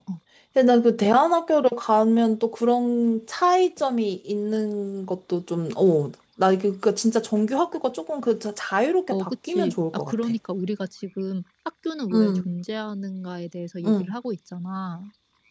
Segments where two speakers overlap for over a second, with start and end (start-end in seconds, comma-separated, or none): 9.1-10.3